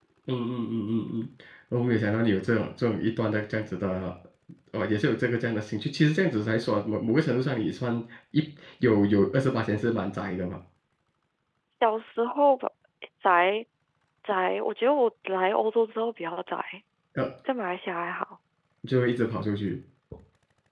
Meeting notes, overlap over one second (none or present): none